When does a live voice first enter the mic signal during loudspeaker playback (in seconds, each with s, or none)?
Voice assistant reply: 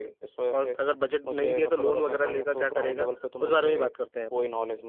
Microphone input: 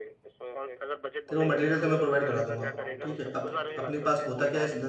1.3 s